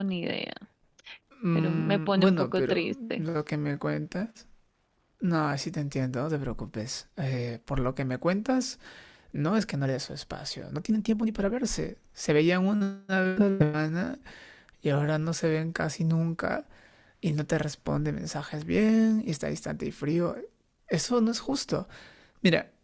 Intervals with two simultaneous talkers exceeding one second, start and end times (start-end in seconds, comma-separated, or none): 1.6-3.2